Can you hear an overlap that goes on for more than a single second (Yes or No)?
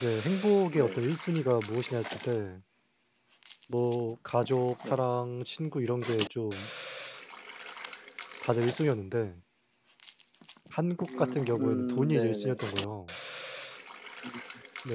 Yes